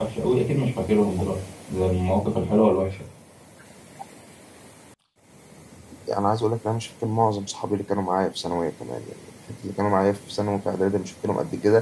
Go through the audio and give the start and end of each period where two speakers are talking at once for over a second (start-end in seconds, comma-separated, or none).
none